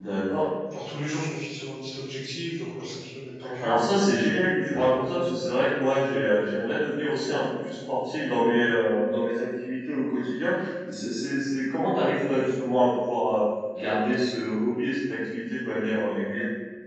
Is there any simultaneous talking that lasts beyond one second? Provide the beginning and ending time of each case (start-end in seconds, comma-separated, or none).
none